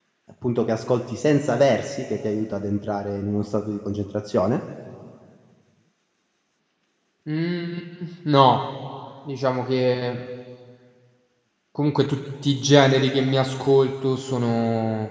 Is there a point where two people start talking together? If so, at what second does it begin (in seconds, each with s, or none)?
none